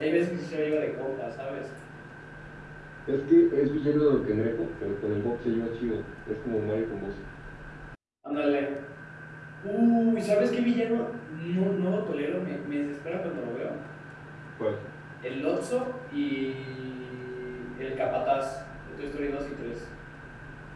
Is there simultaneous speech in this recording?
No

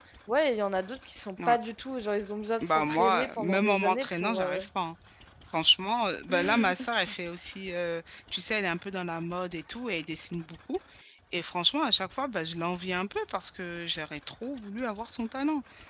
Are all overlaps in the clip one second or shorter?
No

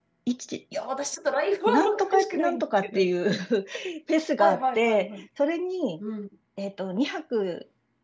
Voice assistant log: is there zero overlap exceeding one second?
No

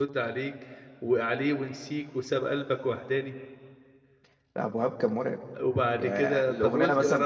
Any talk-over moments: Yes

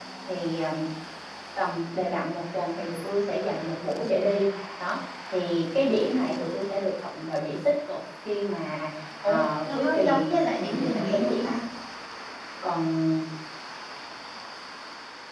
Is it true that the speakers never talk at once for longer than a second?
No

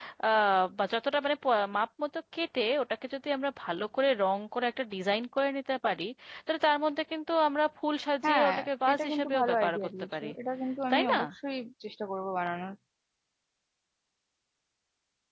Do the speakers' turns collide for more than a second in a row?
Yes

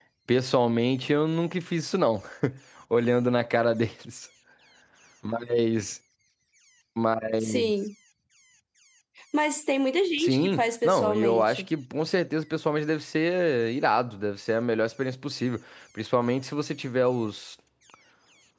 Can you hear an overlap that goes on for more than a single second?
Yes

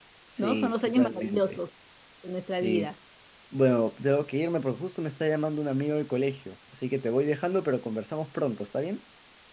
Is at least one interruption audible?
Yes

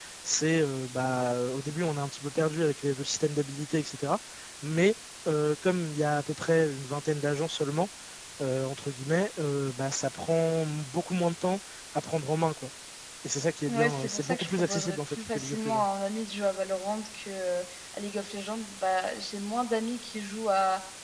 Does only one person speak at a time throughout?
No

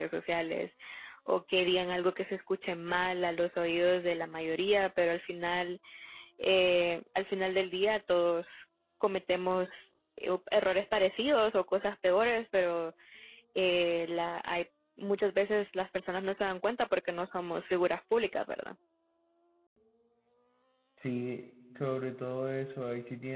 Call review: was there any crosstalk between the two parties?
No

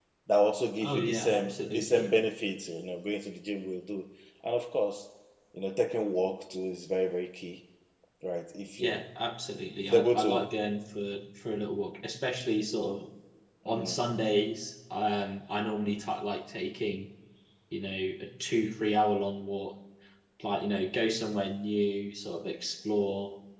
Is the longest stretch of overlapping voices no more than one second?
No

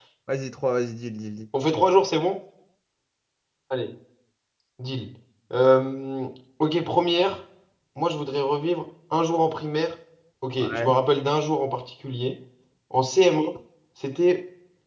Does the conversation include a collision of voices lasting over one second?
No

